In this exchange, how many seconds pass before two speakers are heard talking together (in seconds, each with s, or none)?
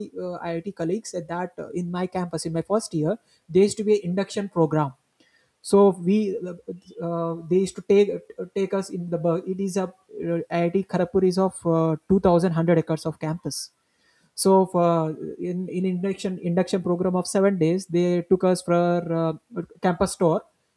none